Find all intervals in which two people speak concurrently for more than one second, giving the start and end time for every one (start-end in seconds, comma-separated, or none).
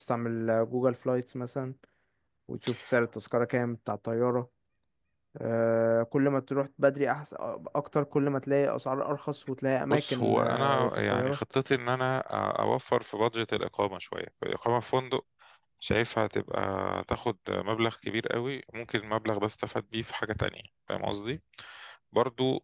9.9-11.4